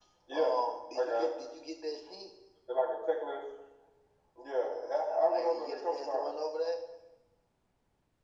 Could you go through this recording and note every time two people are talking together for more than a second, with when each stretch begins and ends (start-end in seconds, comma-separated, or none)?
5.1-6.3